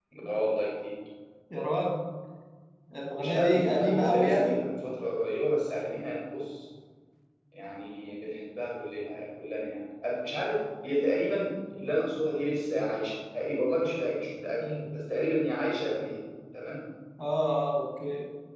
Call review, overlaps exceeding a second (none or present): present